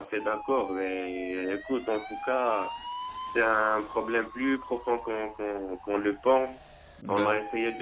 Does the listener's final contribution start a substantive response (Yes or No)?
No